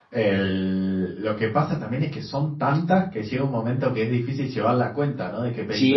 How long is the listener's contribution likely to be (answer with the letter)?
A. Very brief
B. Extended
B